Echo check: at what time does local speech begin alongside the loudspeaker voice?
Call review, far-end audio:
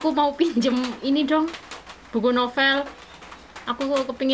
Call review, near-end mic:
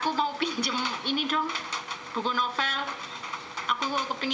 none

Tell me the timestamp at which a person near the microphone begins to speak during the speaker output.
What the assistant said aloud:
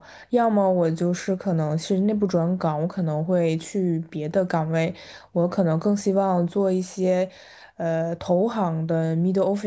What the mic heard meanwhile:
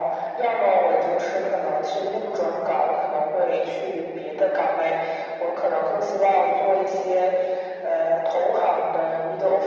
none

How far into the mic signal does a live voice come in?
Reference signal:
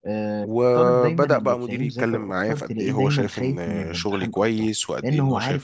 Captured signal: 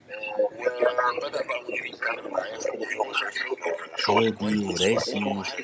4 s

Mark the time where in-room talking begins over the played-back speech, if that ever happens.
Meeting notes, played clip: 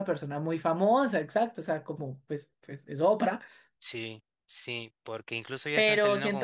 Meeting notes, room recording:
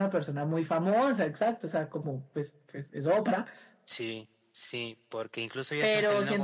none

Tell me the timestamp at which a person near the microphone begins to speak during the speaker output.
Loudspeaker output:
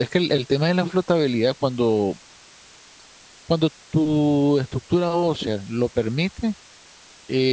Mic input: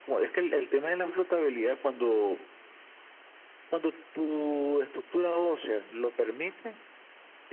none

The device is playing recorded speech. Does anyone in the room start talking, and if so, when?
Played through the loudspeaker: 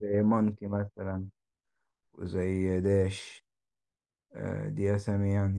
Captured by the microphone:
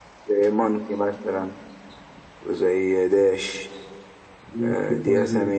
5 s

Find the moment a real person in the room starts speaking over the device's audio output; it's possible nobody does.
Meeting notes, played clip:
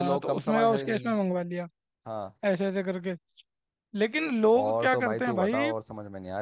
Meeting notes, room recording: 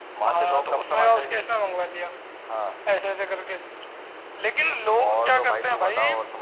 none

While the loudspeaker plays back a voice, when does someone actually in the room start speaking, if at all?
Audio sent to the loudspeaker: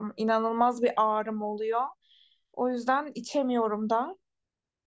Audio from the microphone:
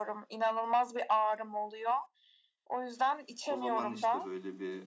3 s

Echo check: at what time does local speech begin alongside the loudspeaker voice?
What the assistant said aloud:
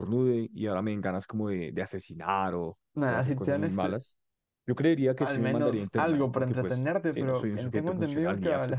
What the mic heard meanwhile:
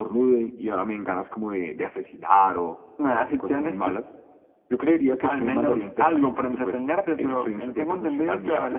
none

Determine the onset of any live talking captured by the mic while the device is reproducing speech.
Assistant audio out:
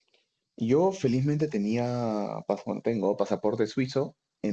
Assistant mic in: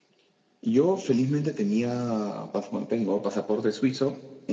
none

